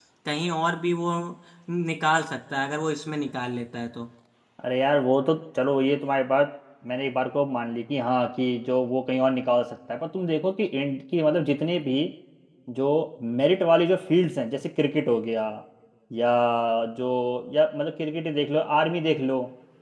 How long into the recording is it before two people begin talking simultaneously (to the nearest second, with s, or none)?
none